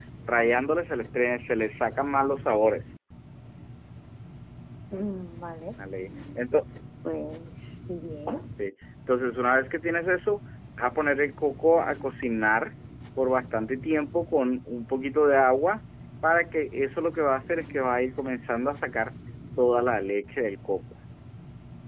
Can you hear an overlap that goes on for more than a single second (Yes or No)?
No